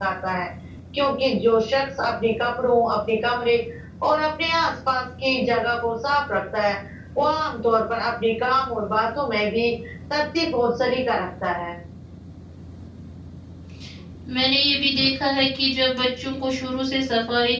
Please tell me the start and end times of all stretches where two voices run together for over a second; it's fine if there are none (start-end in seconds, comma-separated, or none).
none